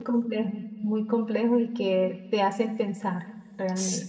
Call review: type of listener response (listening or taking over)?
taking over